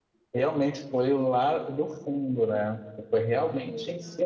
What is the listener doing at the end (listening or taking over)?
listening